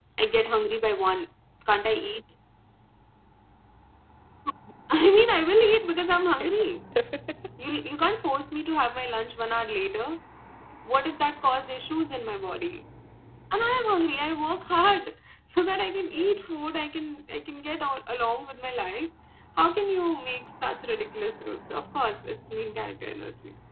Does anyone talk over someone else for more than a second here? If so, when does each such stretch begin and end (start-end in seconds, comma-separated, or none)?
none